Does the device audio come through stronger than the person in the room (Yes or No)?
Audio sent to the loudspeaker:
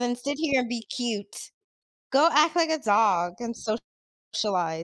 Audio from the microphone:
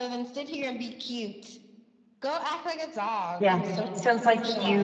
No